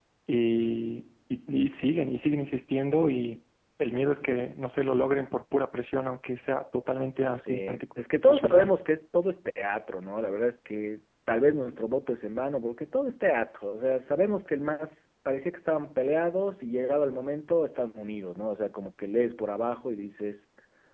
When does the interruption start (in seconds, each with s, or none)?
7.4 s